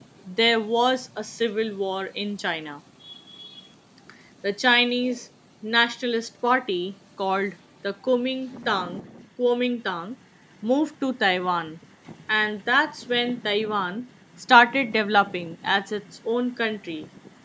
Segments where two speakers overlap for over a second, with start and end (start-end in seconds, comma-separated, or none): none